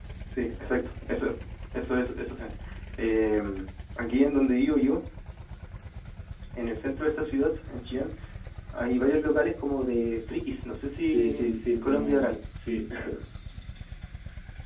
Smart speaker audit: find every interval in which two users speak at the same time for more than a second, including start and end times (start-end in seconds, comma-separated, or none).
11.0-12.4